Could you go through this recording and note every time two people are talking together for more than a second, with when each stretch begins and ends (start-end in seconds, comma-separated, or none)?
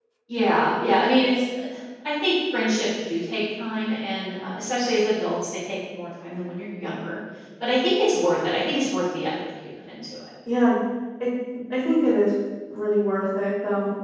none